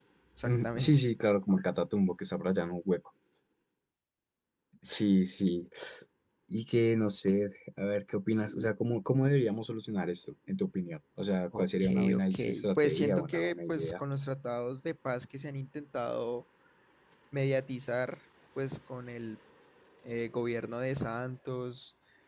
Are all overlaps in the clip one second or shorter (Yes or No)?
No